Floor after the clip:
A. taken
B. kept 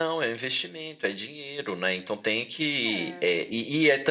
B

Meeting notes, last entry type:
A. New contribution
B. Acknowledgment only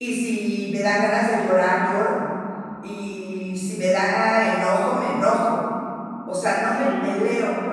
B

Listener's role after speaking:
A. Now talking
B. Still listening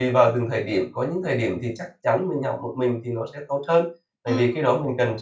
B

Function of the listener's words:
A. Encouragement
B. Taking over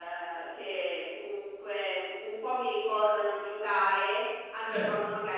A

